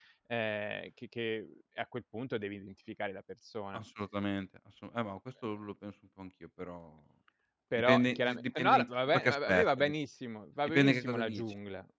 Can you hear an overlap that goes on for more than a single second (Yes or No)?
Yes